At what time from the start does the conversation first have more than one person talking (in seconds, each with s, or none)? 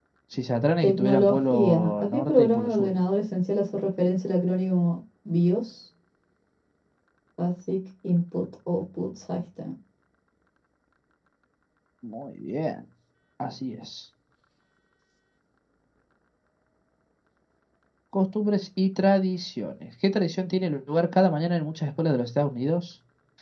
0.8 s